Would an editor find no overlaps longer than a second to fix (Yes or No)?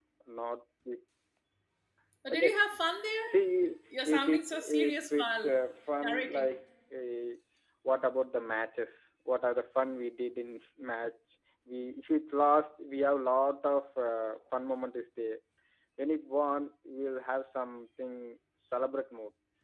No